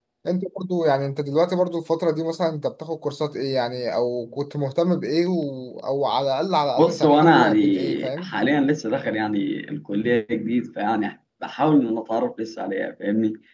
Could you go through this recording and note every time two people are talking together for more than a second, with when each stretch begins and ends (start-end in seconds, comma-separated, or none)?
6.8-8.4